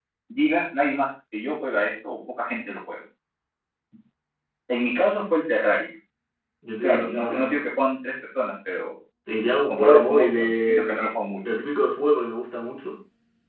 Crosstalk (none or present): present